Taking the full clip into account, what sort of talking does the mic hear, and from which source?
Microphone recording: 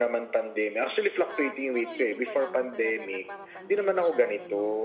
both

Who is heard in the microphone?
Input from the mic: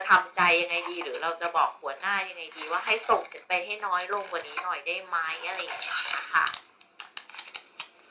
echo only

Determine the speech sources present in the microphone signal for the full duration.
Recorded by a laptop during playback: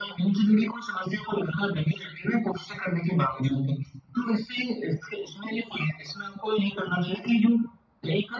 echo only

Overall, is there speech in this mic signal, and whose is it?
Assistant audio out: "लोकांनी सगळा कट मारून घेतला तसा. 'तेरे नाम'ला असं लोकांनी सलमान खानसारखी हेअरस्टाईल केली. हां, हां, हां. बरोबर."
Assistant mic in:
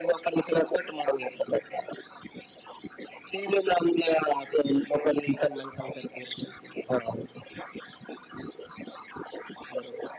echo only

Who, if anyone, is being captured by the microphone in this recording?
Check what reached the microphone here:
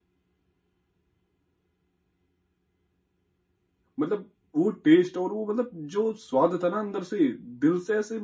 user only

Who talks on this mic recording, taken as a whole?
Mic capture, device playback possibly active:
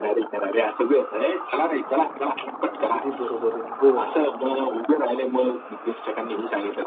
both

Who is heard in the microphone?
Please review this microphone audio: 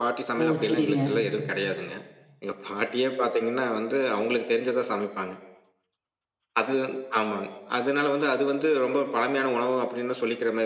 both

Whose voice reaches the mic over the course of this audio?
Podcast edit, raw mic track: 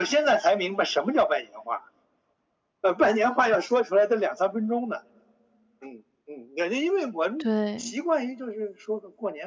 both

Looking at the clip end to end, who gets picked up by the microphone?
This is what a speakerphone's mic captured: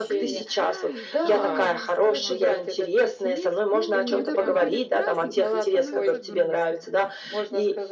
both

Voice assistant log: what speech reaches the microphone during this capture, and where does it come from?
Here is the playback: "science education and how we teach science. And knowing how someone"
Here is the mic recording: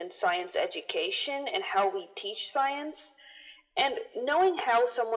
echo only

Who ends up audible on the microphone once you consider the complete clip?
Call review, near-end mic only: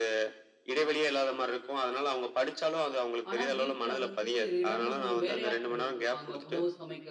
both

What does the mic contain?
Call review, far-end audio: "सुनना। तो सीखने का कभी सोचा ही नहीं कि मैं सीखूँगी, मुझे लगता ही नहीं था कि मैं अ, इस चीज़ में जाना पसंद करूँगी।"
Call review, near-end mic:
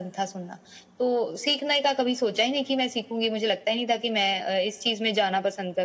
echo only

